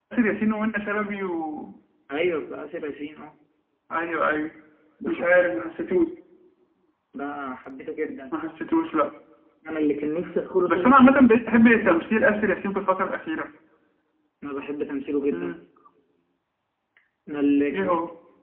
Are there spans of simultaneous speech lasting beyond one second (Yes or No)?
No